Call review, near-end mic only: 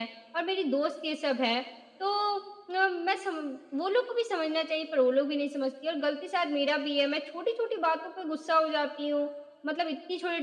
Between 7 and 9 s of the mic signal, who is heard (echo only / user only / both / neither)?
echo only